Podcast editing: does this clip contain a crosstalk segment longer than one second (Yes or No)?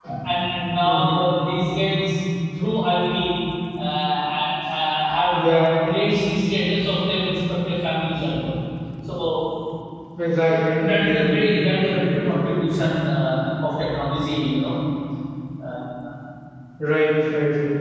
Yes